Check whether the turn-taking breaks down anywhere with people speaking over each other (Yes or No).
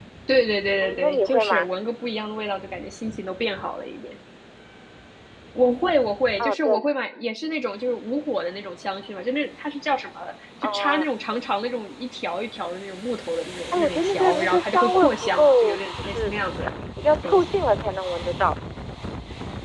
Yes